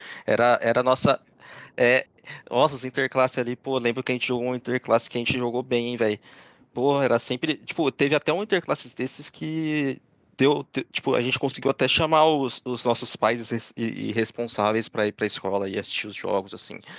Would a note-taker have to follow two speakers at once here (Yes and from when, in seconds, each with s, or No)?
No